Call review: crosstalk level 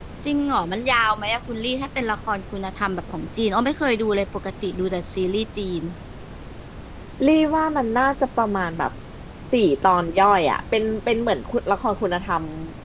none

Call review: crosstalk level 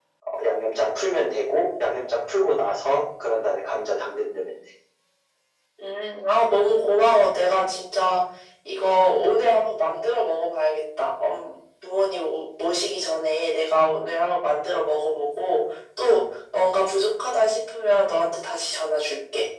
none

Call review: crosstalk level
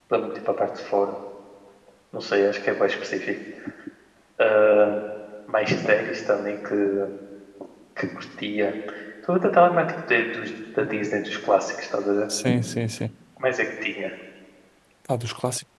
none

